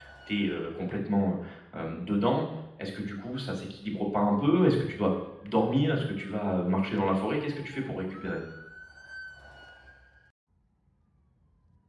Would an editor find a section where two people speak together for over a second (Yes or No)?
No